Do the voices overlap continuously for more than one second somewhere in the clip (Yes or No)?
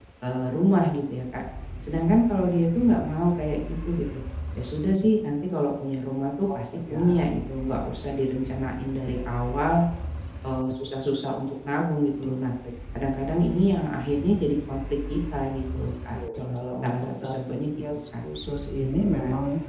Yes